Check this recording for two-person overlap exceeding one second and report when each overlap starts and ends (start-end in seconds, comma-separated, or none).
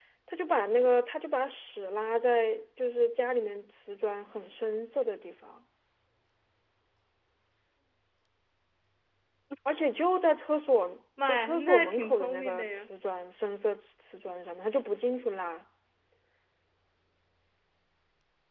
11.2-12.9